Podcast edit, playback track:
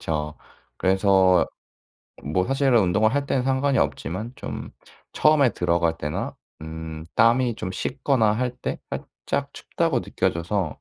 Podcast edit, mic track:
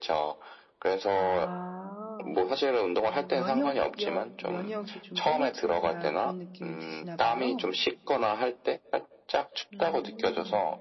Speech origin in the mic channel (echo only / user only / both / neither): both